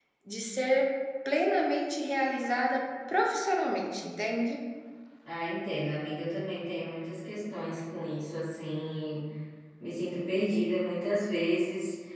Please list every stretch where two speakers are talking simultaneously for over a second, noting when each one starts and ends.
none

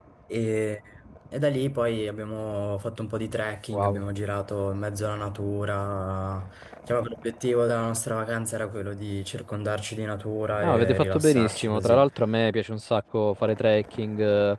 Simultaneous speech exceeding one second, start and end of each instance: 10.6-12.0

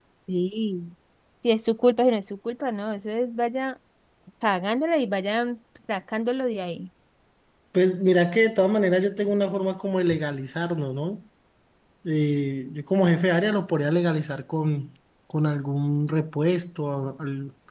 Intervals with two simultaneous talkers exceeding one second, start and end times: none

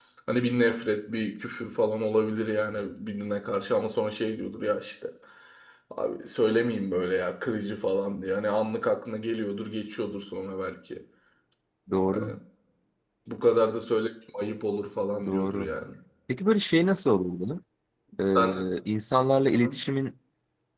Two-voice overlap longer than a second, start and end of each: none

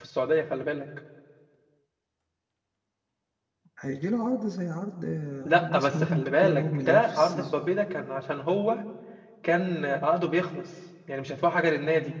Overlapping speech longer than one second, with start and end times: 5.4-7.5

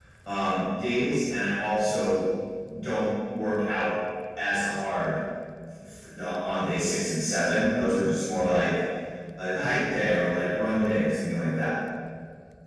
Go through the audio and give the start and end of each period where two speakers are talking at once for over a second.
none

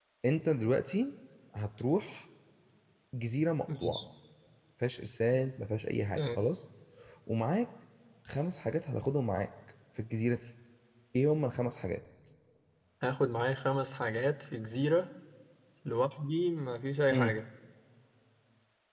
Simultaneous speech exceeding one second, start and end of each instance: none

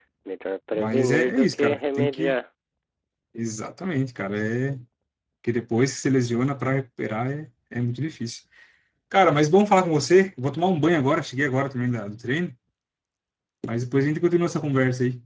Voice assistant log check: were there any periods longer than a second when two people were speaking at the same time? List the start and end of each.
0.8-2.3

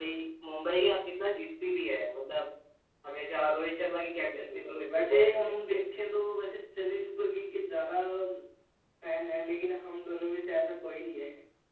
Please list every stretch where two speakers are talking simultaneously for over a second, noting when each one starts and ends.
4.3-5.8

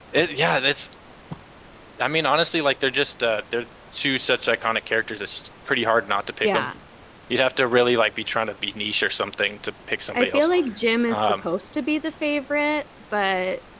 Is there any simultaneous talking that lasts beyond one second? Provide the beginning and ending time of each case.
none

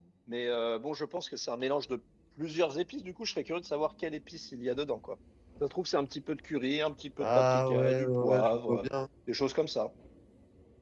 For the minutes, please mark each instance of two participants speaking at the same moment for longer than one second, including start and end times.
7.2-8.8

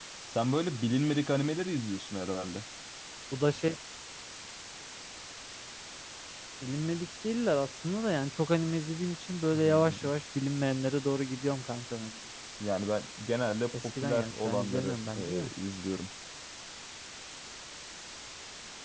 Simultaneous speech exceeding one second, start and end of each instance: 13.8-15.5

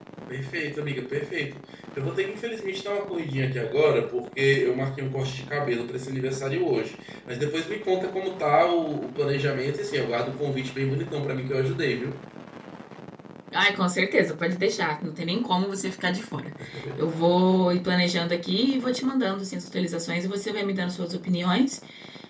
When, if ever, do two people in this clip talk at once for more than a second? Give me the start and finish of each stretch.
none

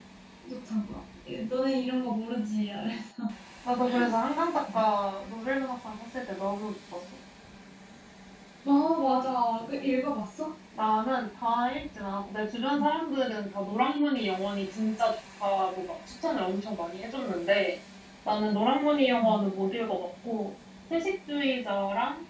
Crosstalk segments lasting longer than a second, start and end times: none

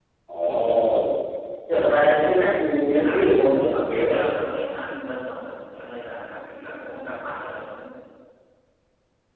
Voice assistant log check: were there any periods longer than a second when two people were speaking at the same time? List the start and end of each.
3.0-4.3

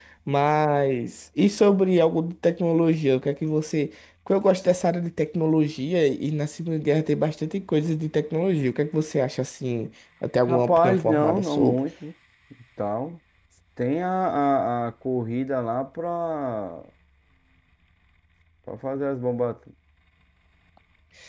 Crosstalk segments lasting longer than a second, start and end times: 10.5-11.8

